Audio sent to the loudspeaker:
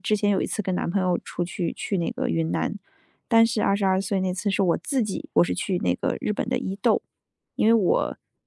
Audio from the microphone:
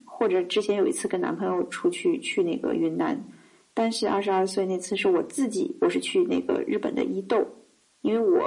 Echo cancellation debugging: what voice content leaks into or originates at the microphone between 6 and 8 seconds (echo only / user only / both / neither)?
echo only